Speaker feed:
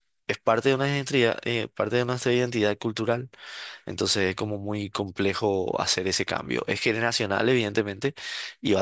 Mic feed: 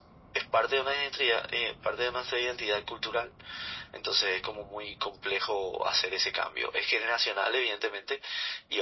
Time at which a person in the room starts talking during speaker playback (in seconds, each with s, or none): none